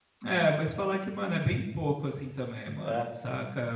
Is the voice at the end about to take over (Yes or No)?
No